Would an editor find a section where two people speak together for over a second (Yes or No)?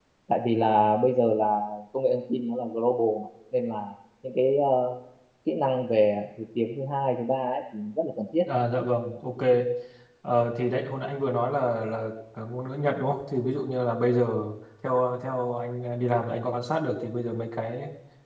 No